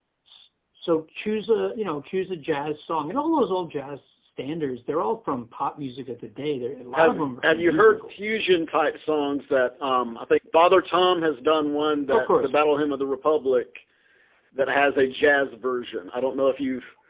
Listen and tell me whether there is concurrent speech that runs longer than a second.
Yes, from 6.9 s

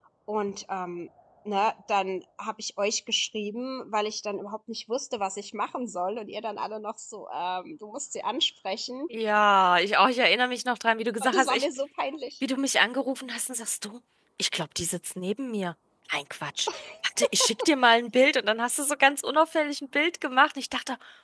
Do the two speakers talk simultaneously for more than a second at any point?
No

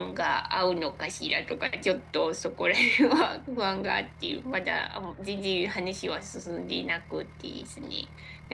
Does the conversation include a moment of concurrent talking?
No

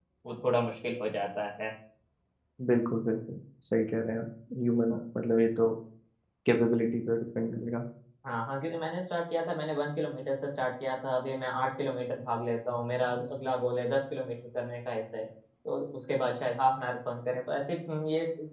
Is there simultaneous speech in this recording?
No

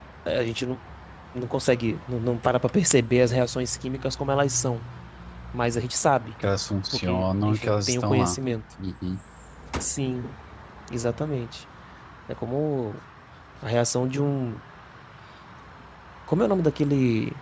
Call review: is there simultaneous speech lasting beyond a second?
Yes, from 6.9 s

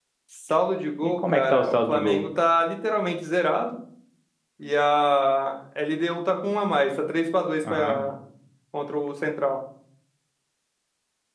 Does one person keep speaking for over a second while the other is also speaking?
Yes, from 1.0 s

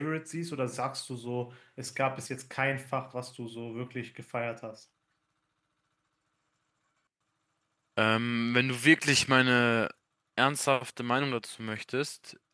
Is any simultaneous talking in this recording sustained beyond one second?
No

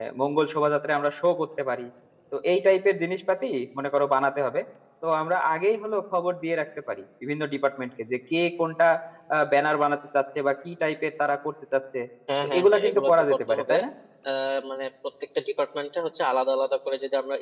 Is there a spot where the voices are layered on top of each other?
Yes, from 12.4 s

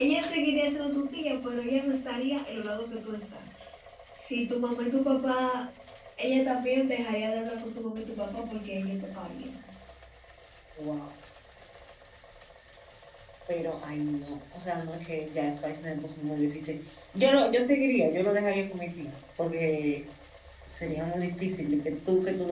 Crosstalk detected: No

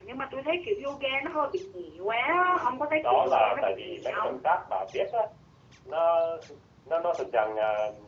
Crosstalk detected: Yes, from 2.2 s

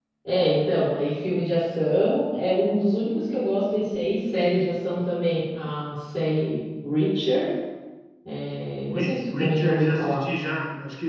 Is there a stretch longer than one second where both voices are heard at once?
Yes, from 8.8 s

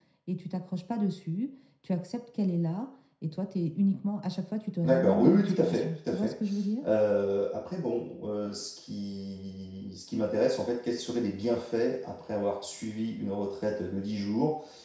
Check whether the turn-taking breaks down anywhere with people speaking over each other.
Yes, from 4.8 s

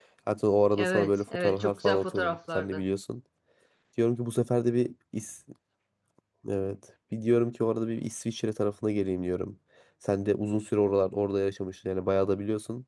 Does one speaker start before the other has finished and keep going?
Yes, from 0.7 s

